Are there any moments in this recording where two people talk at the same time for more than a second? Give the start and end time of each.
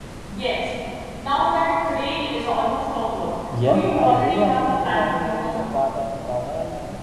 3.6-5.6

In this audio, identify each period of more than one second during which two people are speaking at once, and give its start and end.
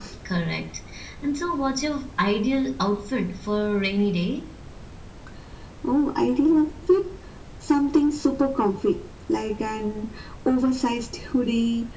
none

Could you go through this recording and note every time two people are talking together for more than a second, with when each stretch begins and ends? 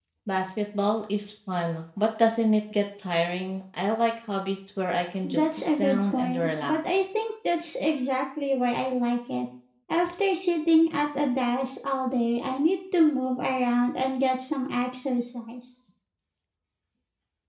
5.2-7.0

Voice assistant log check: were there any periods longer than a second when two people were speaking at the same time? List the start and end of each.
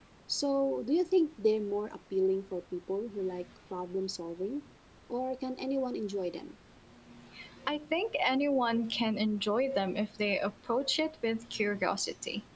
none

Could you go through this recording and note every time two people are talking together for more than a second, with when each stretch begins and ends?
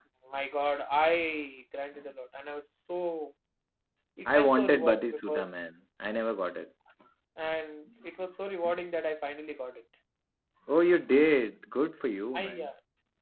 4.2-5.5

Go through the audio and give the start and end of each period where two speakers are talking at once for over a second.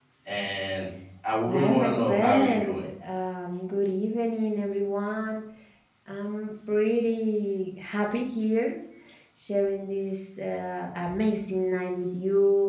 1.5-2.8

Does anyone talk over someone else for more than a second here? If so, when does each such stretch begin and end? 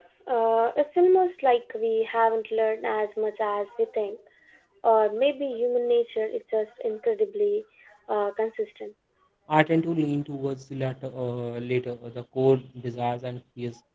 none

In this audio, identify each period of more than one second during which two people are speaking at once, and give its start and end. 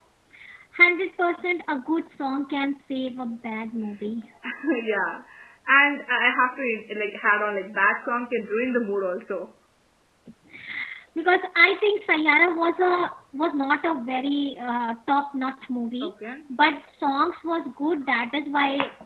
none

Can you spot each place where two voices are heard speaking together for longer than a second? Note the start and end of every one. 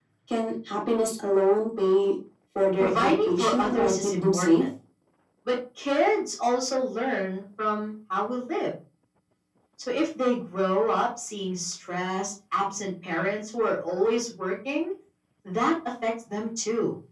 2.8-4.5

